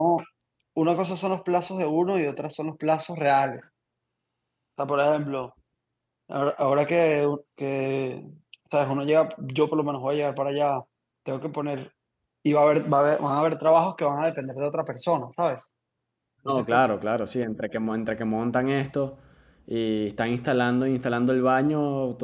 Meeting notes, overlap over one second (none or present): none